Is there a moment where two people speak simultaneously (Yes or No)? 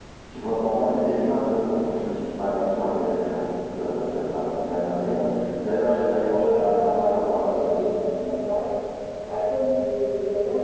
Yes